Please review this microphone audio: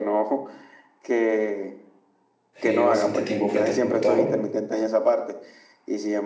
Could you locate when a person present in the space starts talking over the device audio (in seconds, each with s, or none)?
2.5 s